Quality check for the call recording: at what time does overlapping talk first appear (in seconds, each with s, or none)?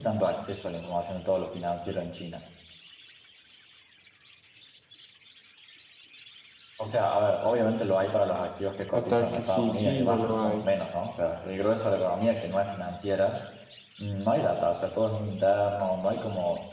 8.9 s